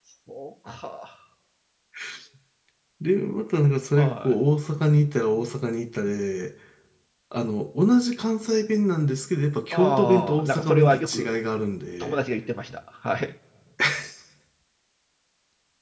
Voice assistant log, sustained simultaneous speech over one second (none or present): present